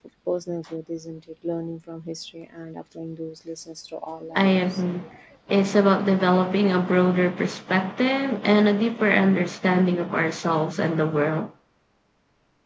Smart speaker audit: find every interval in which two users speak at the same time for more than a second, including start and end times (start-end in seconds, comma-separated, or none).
none